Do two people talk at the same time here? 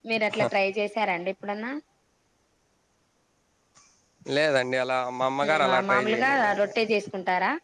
Yes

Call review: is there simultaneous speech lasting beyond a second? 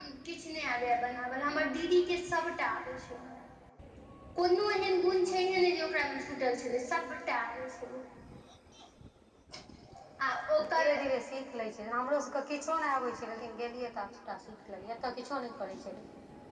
No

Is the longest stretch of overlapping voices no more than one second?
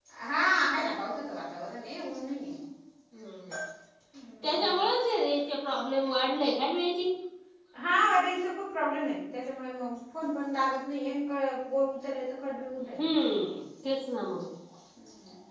Yes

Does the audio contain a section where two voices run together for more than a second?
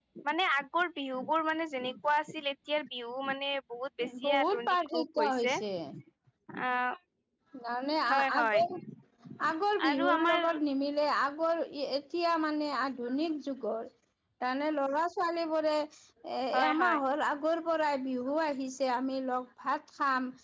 Yes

